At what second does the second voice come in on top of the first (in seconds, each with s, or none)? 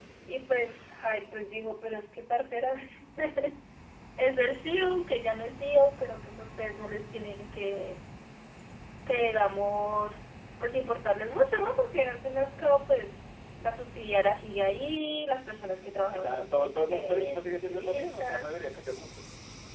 16.1 s